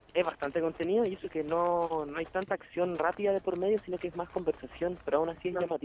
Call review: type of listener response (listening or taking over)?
taking over